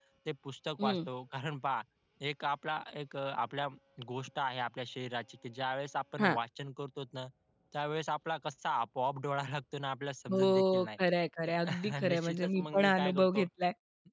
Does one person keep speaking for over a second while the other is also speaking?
Yes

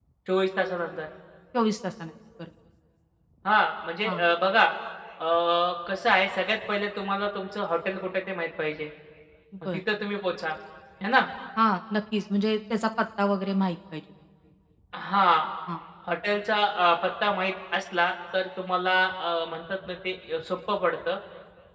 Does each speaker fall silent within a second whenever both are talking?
Yes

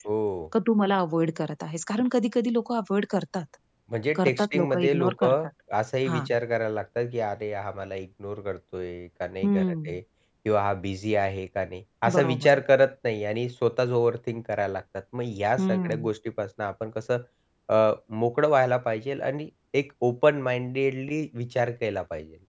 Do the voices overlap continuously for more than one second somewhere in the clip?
Yes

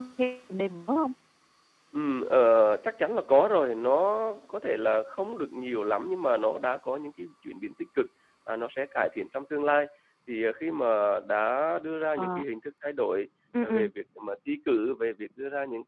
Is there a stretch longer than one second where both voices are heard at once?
No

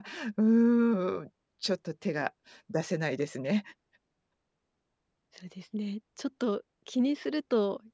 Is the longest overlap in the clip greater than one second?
No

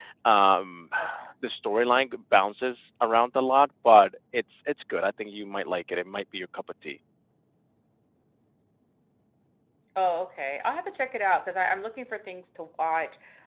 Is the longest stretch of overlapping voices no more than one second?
Yes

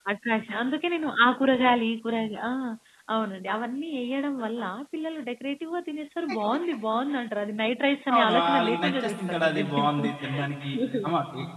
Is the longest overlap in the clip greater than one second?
Yes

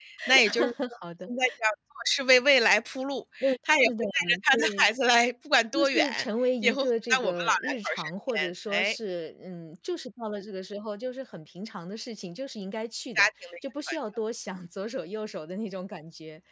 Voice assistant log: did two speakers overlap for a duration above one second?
Yes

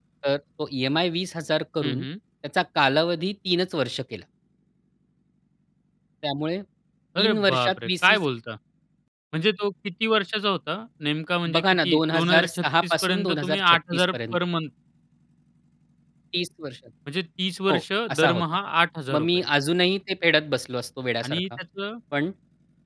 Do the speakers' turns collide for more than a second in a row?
Yes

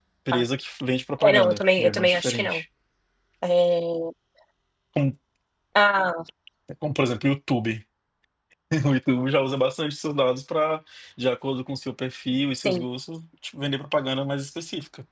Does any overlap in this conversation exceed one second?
Yes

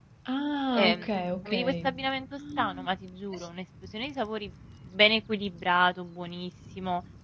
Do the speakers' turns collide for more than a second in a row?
No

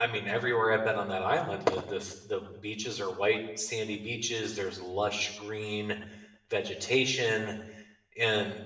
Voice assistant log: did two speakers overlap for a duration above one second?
No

